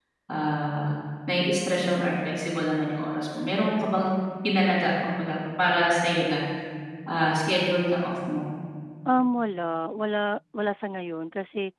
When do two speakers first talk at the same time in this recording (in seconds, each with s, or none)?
none